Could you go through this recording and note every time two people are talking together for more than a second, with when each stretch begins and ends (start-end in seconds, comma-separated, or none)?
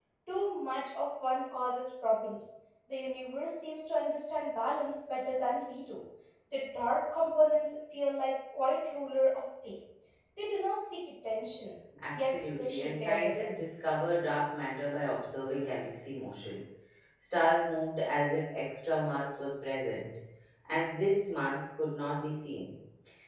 12.1-13.5